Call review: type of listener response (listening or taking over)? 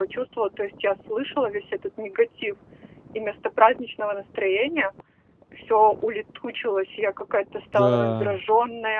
listening